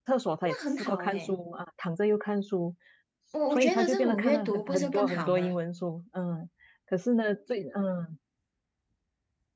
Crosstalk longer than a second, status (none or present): present